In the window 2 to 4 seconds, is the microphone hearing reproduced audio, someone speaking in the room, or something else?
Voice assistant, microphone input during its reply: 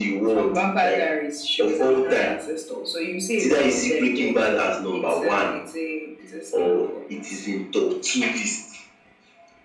echo only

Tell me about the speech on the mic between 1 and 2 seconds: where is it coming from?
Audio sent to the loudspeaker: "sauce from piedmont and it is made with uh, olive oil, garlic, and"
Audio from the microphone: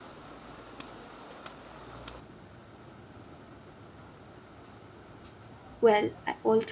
neither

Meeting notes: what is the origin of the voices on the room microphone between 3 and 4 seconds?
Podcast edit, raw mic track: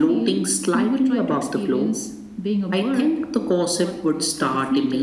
echo only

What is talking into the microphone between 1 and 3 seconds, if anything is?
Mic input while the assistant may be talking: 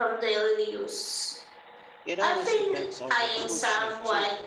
both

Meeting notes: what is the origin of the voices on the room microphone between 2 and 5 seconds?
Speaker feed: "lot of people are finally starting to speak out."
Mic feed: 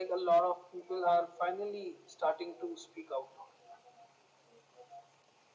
echo only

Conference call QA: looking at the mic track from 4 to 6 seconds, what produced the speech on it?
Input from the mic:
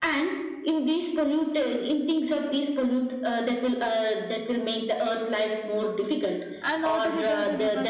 echo only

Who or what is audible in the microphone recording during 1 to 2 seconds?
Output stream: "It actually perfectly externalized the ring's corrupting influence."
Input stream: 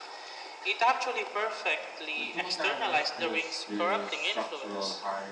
echo only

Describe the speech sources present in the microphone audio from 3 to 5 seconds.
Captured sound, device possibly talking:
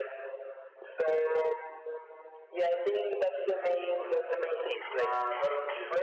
both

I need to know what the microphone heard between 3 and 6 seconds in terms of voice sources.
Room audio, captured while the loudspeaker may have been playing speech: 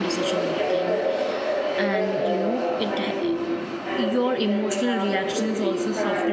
both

